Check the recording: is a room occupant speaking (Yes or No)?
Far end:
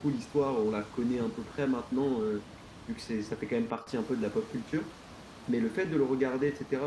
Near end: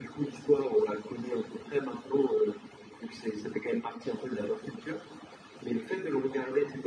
No